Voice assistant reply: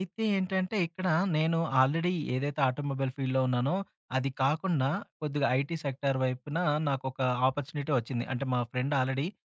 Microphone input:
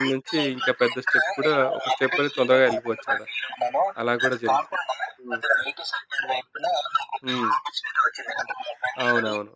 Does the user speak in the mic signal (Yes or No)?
Yes